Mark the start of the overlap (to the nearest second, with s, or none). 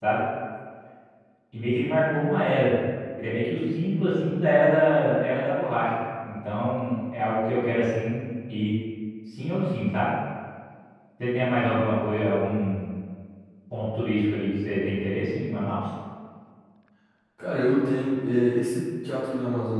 none